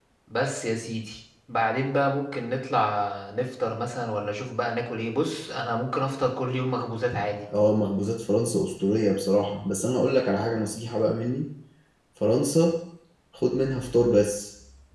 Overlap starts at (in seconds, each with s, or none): none